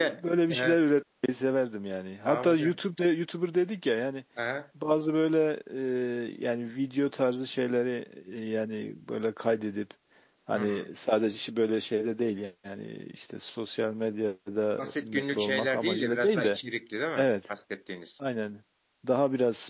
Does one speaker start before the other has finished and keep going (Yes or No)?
Yes